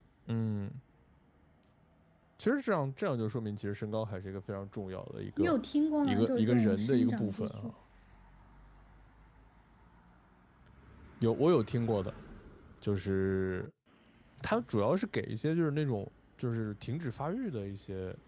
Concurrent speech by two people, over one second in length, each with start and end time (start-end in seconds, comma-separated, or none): 6.0-7.7